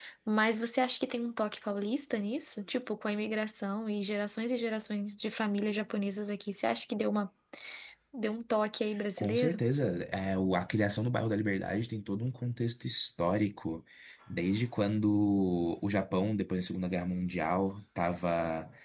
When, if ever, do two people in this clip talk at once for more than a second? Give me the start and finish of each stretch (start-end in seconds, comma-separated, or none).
none